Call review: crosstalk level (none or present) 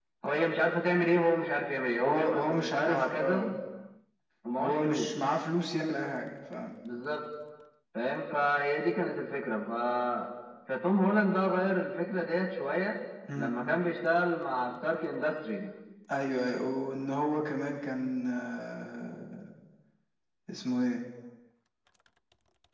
present